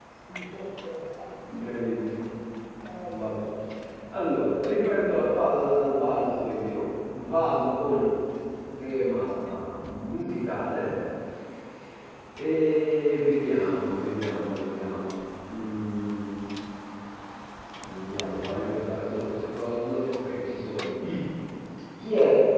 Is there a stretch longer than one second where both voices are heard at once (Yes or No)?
No